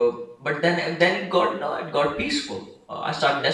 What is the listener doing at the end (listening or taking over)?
listening